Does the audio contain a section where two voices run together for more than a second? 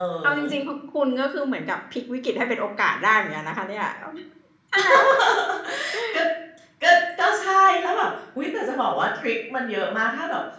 No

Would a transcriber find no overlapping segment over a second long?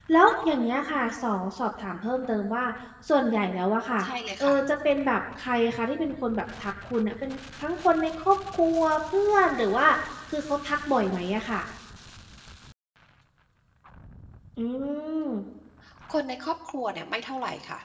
Yes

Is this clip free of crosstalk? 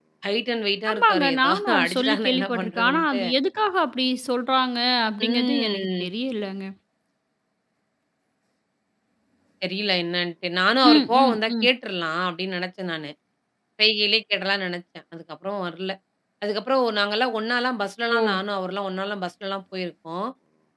No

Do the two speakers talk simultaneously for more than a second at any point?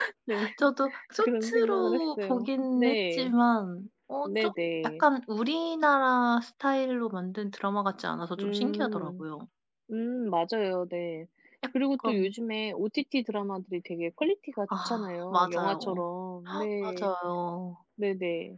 Yes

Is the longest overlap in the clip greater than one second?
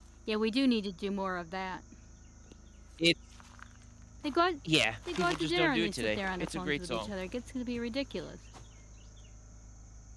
Yes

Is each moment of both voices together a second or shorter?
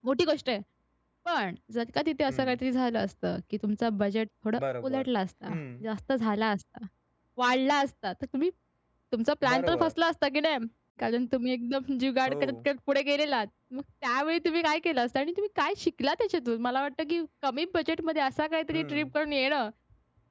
Yes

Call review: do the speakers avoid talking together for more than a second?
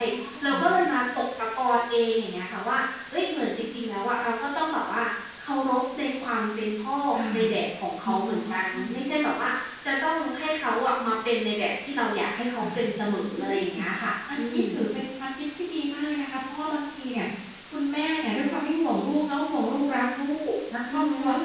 Yes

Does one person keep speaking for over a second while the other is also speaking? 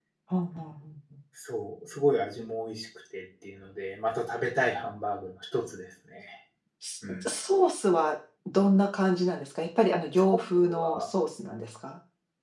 No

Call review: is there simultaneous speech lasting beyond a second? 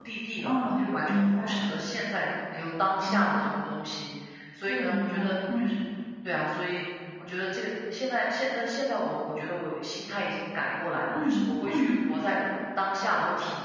Yes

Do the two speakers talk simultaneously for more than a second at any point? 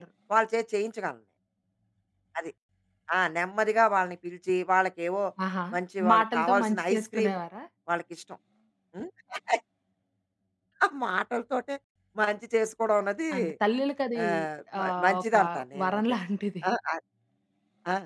Yes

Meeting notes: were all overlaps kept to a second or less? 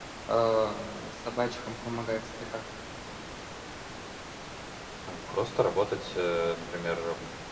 Yes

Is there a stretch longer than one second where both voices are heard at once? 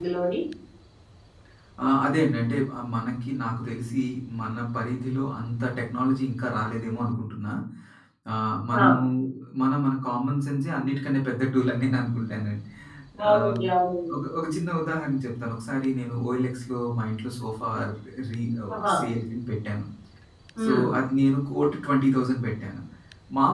No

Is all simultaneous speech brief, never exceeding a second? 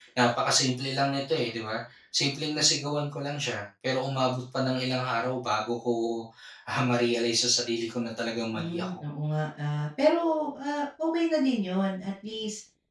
Yes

